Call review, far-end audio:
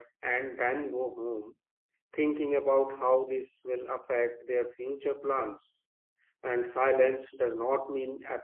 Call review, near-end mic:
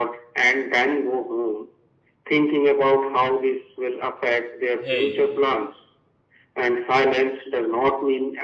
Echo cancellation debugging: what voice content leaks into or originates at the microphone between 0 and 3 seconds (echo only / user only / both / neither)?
echo only